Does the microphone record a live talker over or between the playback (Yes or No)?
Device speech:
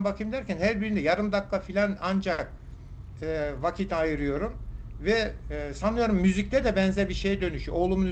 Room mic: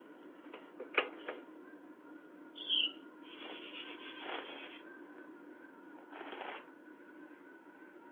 No